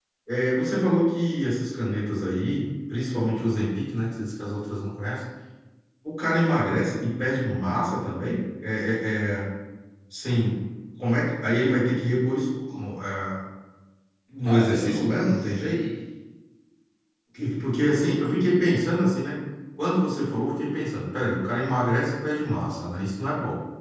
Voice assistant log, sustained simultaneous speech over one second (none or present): present